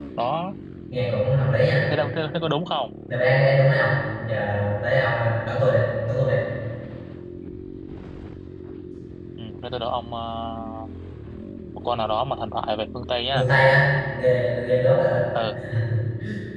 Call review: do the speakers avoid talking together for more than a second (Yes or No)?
Yes